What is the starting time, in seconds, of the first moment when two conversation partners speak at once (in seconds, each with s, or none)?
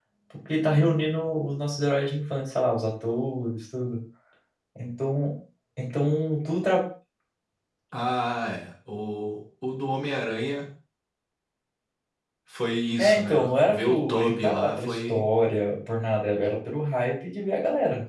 13.0 s